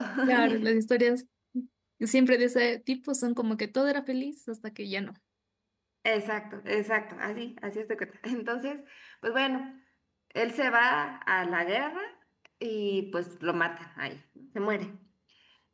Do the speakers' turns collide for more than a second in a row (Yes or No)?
No